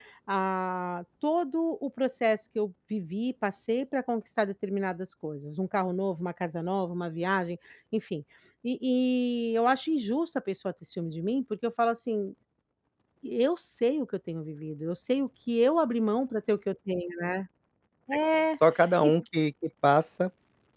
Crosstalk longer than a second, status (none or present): none